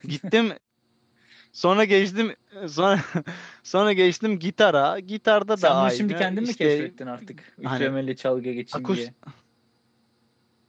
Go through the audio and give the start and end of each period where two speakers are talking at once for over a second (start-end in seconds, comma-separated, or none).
5.6-6.9